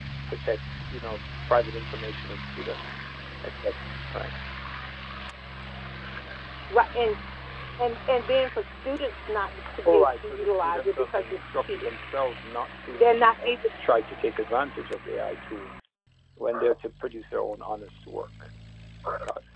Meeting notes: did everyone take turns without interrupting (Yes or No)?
No